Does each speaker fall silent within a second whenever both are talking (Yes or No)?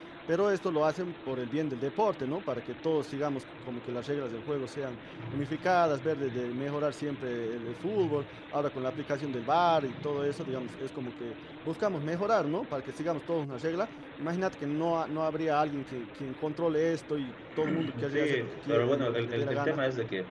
No